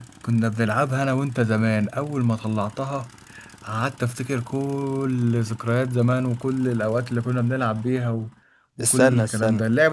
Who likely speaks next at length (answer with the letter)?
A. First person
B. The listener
A